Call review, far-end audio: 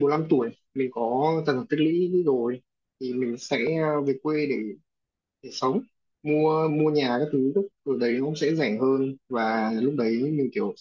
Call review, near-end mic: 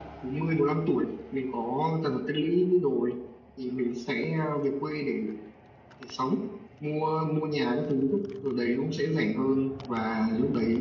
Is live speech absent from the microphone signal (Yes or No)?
Yes